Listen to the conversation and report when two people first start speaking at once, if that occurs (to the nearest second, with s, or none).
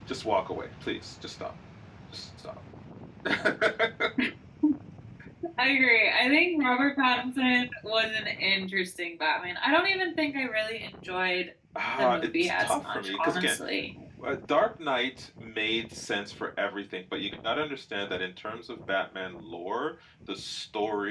12 s